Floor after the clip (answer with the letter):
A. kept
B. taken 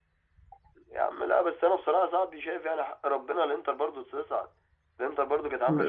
B